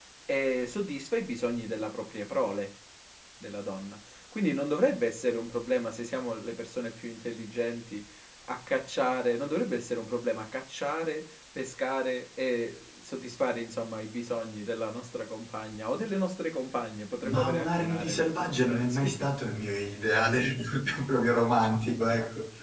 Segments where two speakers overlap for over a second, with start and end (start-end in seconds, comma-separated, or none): 17.2-19.3